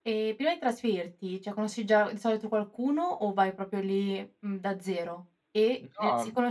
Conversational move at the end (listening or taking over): listening